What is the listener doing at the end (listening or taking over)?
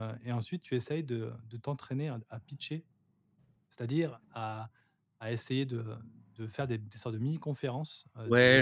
taking over